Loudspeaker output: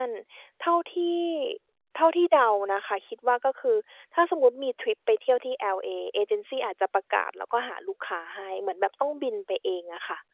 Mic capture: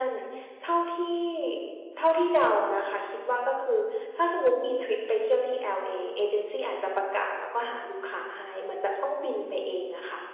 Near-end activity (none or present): none